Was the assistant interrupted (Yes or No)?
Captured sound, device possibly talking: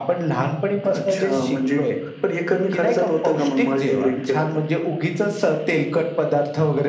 No